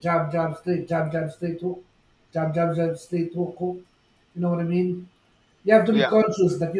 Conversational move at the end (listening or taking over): listening